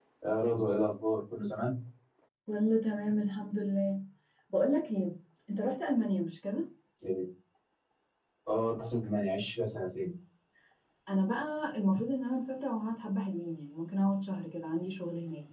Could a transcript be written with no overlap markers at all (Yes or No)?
Yes